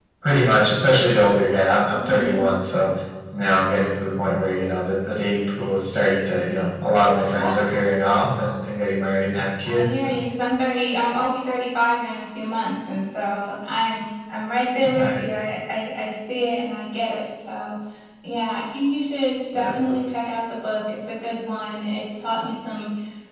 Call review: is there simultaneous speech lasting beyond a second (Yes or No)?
No